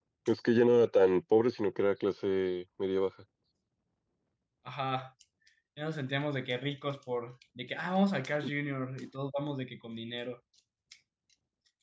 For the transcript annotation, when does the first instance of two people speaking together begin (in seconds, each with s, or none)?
none